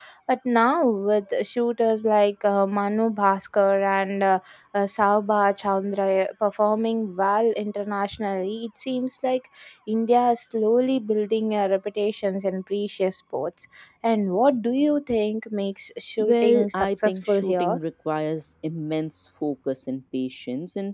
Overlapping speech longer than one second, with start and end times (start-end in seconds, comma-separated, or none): 16.2-17.8